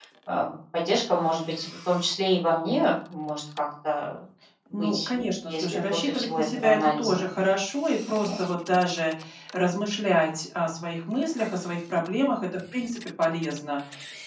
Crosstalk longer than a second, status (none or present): present